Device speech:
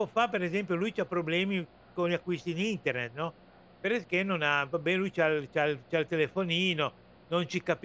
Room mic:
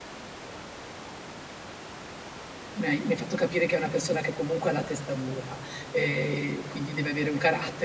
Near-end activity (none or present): present